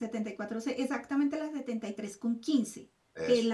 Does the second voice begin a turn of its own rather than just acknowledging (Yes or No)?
No